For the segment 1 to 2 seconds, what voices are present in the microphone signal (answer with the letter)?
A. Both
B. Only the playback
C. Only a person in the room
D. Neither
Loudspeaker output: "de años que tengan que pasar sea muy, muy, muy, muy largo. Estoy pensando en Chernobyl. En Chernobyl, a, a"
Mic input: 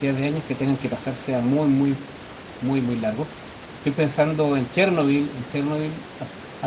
B